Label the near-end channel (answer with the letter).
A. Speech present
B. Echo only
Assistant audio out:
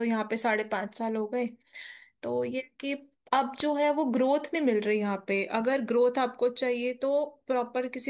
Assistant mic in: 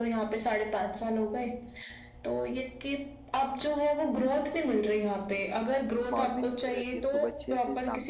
A